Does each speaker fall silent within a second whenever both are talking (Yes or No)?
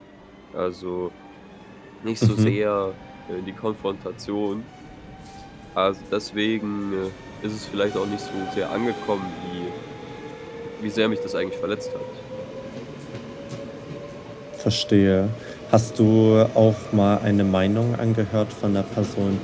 Yes